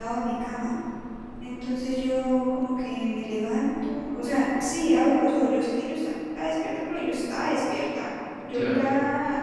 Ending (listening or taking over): listening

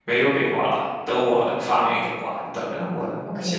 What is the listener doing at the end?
taking over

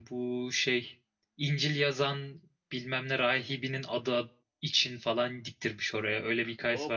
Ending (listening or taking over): taking over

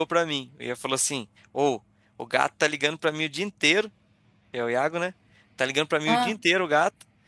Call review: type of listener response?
listening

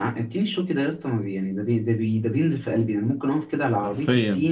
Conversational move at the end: listening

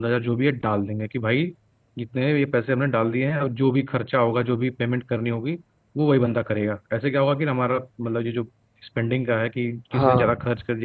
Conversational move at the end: listening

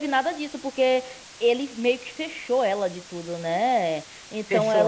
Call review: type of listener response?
taking over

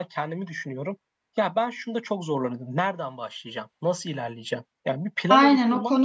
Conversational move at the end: taking over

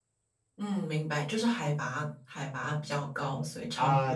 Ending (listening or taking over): taking over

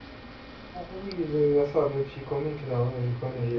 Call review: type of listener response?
taking over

